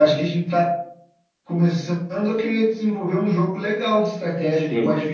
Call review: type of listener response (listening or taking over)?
taking over